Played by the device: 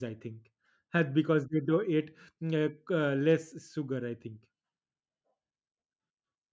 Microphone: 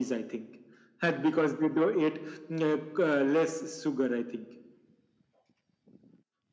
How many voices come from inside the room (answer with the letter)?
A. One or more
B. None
B